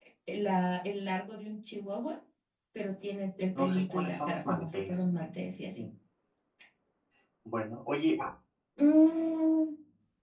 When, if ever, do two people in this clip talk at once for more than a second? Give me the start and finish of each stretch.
3.5-5.1

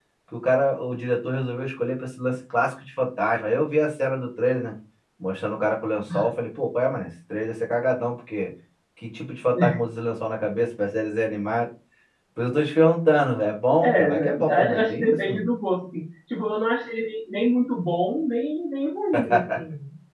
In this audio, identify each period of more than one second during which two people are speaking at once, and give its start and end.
13.8-15.4

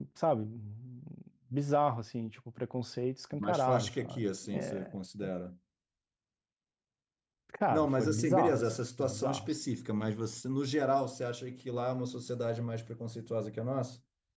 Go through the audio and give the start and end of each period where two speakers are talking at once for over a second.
3.4-4.9, 7.7-9.5

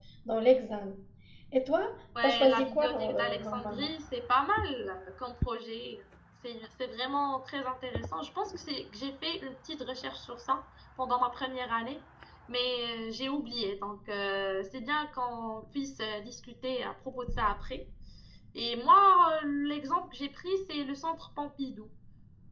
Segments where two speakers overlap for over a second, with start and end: 2.2-3.9

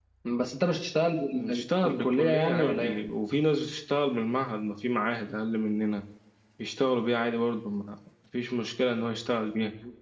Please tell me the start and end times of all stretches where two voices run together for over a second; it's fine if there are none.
1.3-3.0

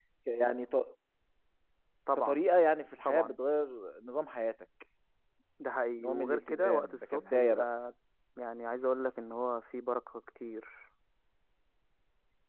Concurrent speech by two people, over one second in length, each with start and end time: 6.0-7.7

